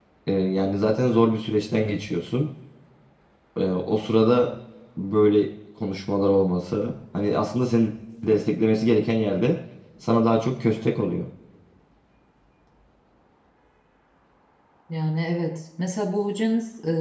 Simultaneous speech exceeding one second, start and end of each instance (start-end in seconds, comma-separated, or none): none